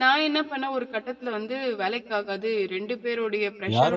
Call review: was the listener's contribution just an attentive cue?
No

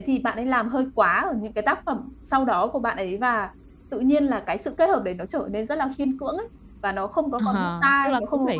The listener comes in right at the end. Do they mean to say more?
Yes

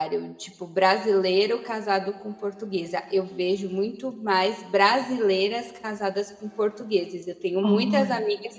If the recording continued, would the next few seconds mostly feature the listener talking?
No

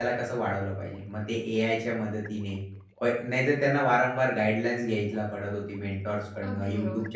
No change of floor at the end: Yes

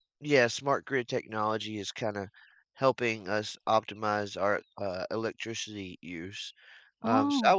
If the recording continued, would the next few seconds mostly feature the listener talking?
No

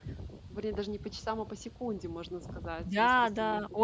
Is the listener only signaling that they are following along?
No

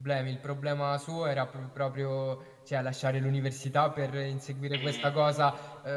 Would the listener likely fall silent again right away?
Yes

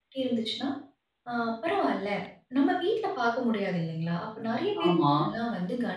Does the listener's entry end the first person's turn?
No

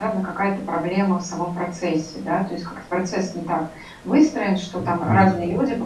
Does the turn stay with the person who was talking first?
Yes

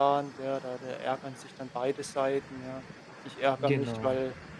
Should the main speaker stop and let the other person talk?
No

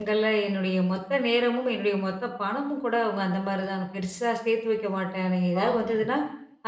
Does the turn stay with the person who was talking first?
Yes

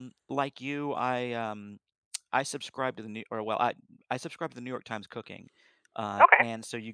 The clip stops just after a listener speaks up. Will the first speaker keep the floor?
Yes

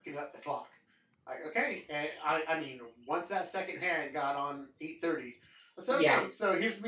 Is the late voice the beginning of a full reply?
No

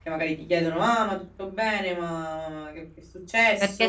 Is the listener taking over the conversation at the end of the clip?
Yes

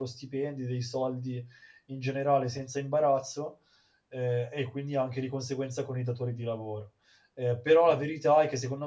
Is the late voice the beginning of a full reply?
No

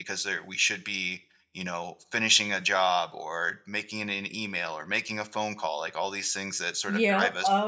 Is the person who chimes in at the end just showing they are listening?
No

